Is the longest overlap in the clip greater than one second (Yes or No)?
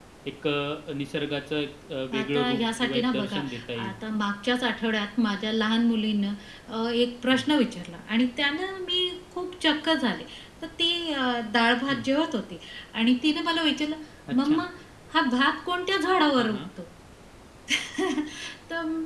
Yes